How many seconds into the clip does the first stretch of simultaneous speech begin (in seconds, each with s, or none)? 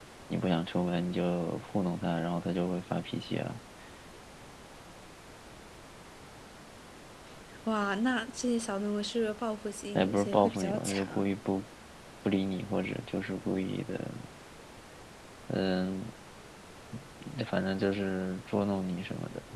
9.9 s